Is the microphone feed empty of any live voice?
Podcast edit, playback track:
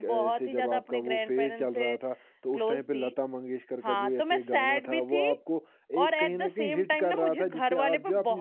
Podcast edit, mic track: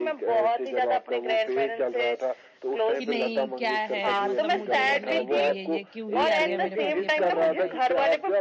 No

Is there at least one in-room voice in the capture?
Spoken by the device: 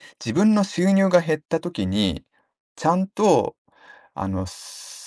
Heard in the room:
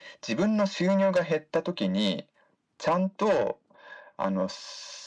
No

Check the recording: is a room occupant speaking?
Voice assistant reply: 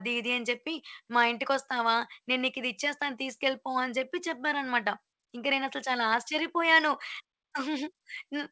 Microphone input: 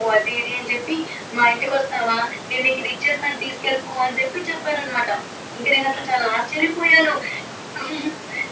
No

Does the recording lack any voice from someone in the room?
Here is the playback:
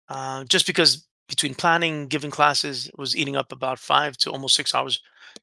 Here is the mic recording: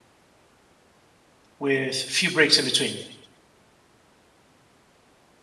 No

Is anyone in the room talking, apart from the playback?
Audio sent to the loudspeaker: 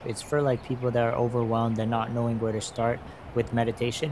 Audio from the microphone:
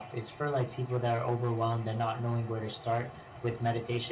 No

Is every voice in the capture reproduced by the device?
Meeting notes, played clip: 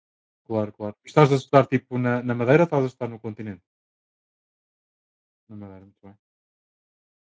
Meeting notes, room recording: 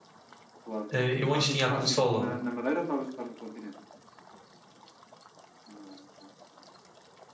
No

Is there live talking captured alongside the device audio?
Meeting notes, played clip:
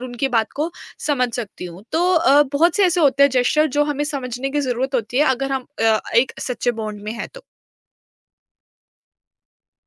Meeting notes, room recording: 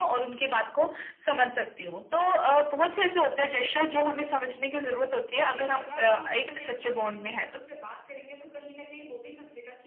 Yes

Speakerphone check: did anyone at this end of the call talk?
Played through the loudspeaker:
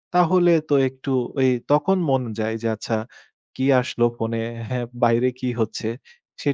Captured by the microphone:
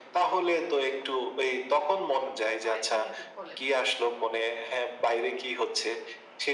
Yes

